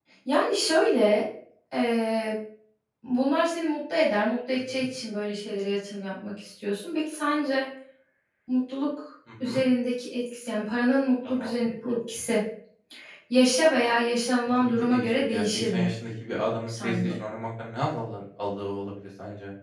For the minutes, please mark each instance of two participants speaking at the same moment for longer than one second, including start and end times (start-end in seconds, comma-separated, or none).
14.6-15.9